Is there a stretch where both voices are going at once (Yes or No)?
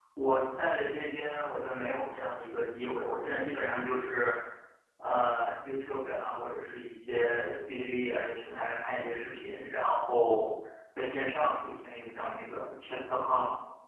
No